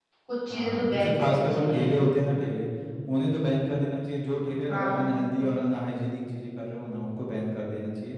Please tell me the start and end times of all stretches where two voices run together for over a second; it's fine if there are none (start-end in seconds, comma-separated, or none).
0.5-2.0